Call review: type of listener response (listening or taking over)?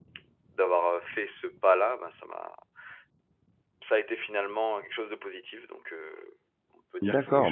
taking over